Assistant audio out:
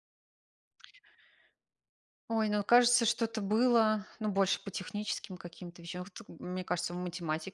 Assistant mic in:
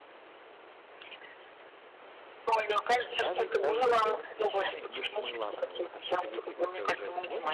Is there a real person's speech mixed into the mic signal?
Yes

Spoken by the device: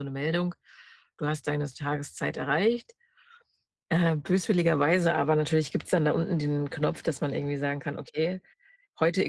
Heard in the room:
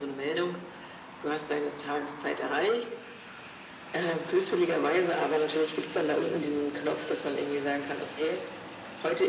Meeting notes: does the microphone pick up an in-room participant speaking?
No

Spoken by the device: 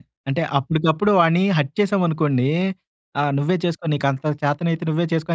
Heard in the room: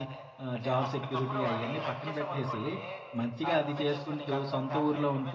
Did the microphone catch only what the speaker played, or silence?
No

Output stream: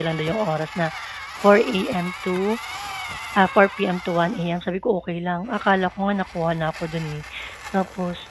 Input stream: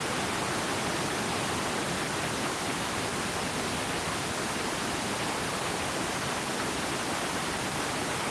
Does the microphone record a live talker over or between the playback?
No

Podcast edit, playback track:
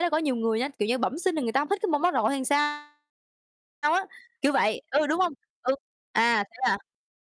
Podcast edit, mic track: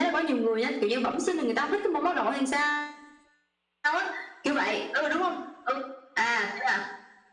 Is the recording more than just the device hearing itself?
No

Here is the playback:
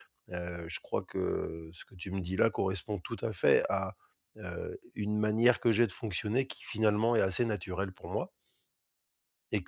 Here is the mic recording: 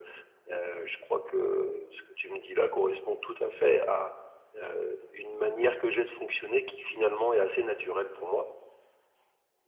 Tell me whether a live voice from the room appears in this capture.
No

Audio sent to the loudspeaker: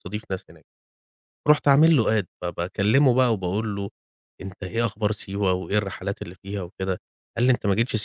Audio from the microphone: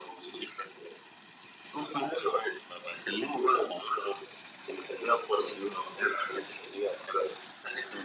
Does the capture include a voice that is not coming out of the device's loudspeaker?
No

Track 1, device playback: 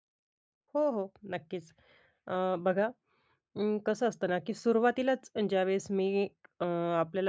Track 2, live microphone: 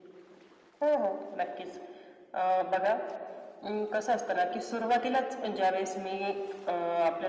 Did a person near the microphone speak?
No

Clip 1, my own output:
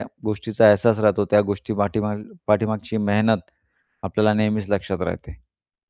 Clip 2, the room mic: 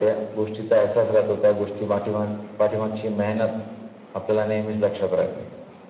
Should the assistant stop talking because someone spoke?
No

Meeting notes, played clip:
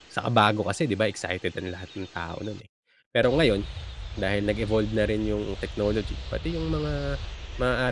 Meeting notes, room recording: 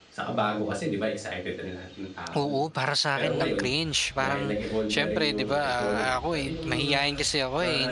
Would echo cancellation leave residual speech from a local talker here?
Yes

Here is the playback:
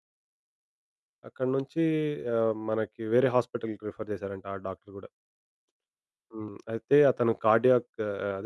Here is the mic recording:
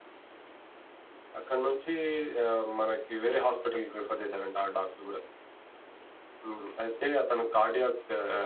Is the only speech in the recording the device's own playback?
Yes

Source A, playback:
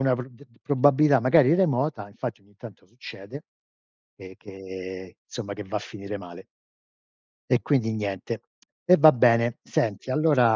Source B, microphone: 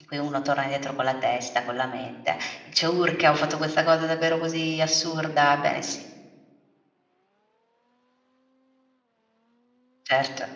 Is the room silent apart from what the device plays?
No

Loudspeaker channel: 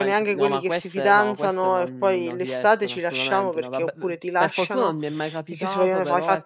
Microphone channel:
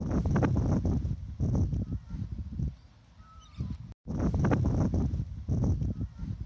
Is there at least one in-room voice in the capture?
No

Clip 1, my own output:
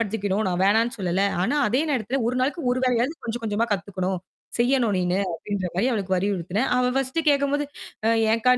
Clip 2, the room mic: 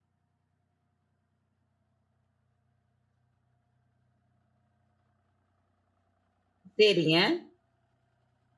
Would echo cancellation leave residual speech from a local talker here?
Yes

